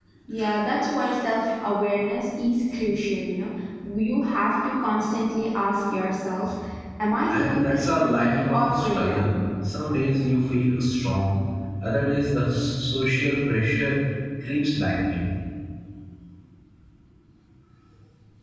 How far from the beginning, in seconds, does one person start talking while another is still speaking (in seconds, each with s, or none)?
7.3 s